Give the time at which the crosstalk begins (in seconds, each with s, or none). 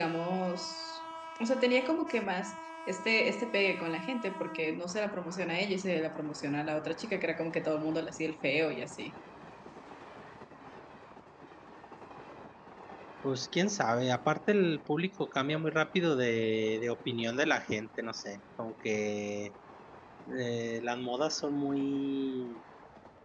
none